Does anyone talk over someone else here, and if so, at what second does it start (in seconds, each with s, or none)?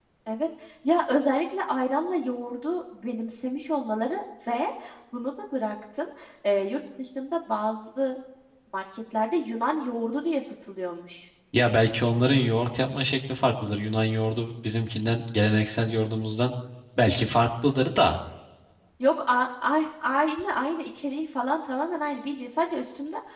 none